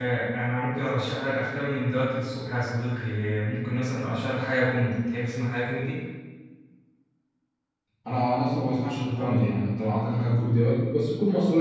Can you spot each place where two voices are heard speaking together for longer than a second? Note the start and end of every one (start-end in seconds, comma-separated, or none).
none